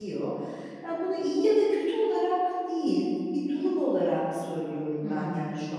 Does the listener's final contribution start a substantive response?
Yes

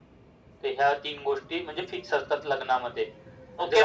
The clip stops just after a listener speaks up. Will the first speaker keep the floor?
No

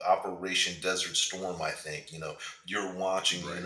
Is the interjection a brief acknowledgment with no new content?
Yes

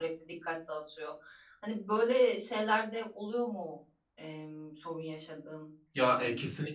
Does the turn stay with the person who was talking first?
No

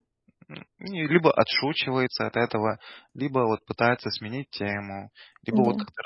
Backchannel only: Yes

